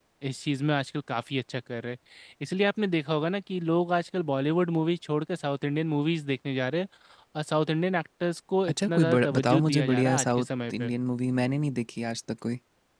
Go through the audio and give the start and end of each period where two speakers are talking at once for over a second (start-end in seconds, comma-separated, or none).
8.7-10.9